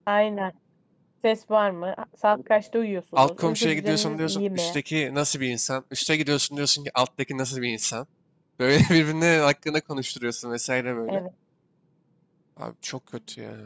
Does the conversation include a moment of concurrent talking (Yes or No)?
Yes